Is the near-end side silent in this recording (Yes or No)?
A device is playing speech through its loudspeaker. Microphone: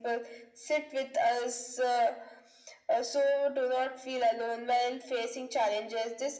Yes